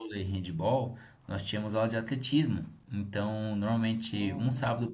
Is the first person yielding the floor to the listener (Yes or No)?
No